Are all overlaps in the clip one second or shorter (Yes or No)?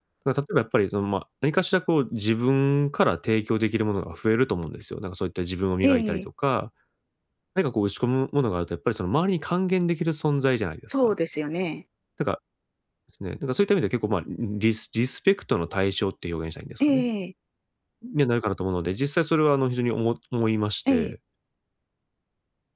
Yes